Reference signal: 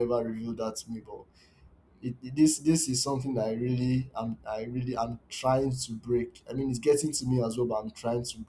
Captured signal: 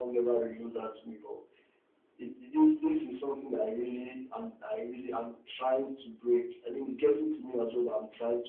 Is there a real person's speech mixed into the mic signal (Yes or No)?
No